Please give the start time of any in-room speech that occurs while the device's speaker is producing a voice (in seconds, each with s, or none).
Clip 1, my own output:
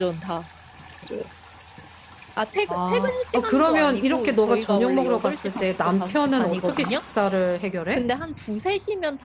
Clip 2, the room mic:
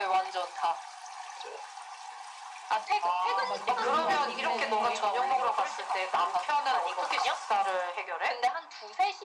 3.5 s